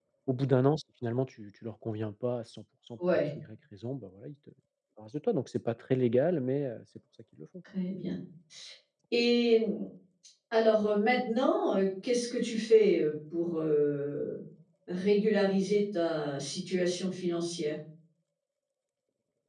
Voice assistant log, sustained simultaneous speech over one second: none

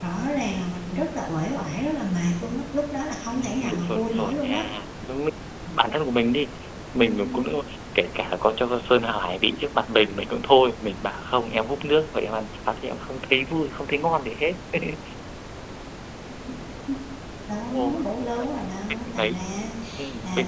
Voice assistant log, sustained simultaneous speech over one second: present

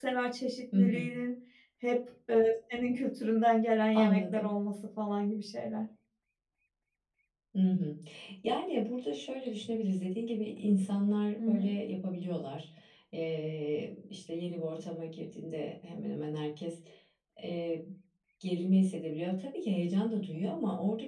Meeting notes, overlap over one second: none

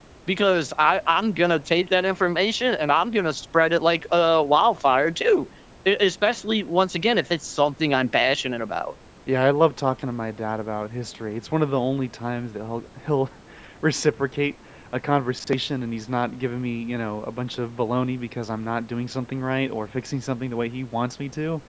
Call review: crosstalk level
none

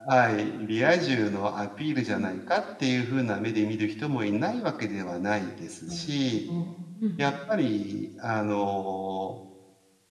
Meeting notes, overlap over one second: none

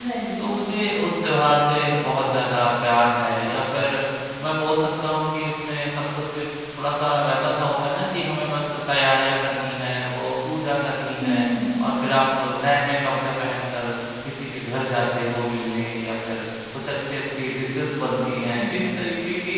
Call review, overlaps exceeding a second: none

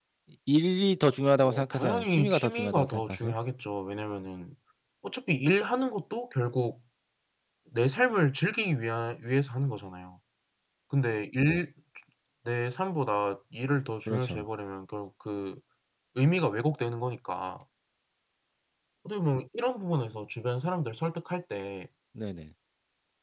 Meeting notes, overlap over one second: present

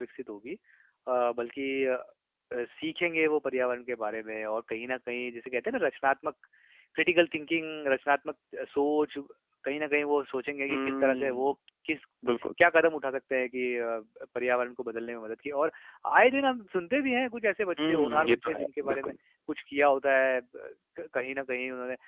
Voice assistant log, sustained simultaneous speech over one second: present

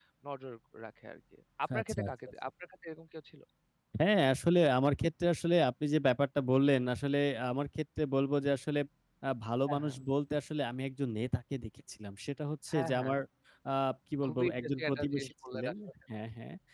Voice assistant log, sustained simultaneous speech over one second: present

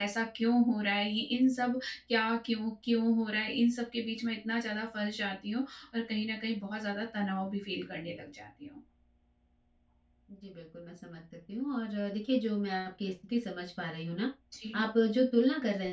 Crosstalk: none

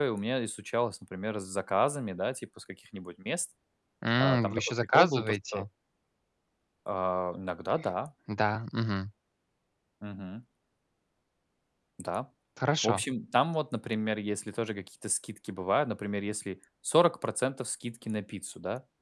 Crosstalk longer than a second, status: present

